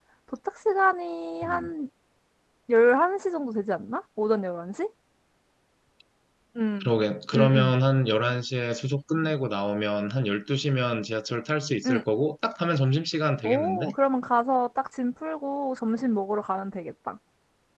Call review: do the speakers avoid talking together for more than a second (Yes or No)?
Yes